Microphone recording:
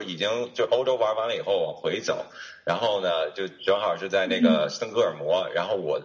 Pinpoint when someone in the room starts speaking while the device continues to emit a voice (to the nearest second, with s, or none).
4 s